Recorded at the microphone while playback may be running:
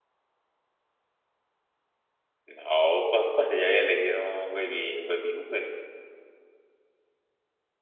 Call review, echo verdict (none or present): none